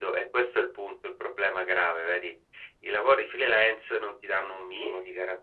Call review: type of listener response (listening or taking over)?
listening